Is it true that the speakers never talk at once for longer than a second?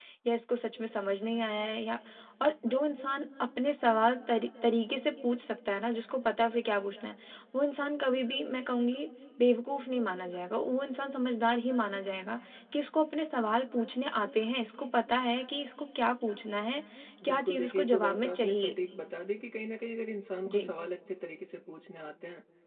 No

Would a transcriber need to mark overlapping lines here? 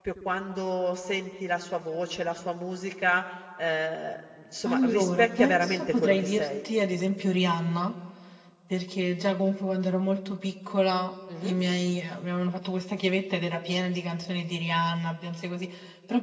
Yes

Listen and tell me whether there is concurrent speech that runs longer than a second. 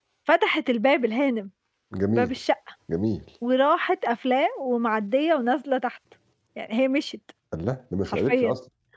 No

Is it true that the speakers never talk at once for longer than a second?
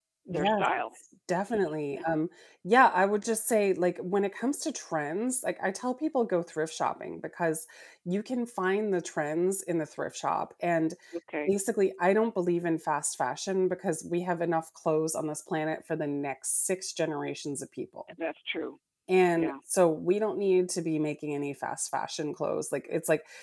Yes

